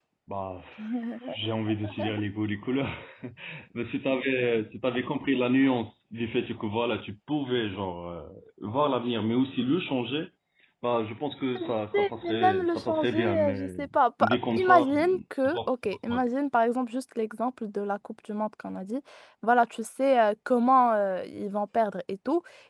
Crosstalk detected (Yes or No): Yes